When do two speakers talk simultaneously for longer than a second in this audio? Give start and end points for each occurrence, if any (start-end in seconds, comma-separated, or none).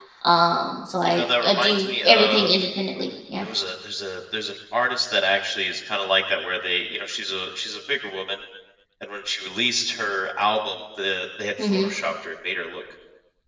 1.1-2.5